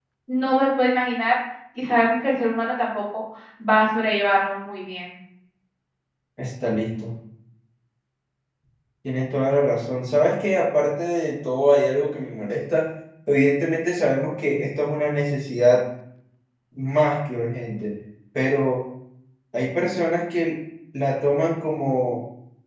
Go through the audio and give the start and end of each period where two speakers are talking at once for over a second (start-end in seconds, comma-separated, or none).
none